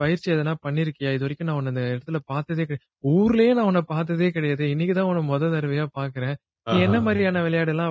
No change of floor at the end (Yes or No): Yes